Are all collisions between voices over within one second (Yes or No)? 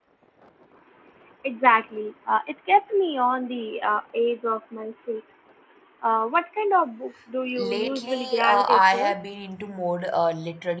No